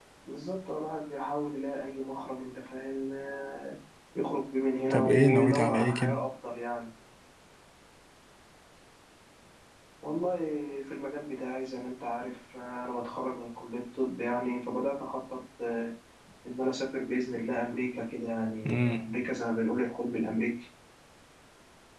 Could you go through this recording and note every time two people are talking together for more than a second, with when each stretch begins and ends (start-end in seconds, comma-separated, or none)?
4.9-6.2